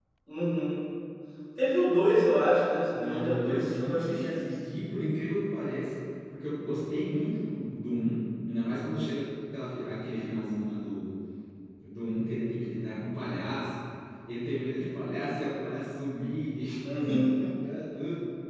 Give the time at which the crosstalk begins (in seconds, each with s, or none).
2.9 s